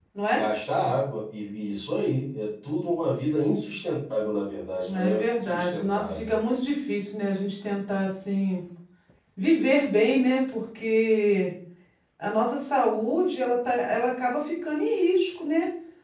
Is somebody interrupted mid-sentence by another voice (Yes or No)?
Yes